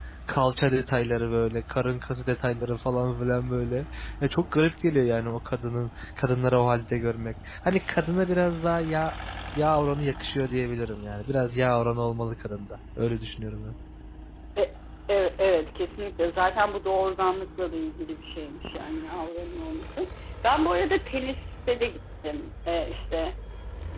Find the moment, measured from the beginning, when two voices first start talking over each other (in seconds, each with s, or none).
none